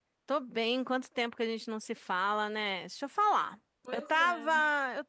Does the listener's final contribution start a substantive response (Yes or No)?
No